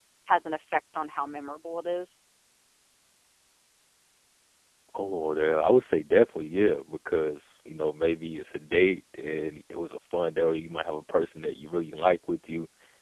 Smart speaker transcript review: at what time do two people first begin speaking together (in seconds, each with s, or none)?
none